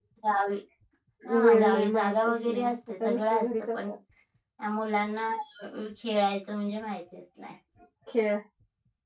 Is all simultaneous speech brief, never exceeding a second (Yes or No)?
No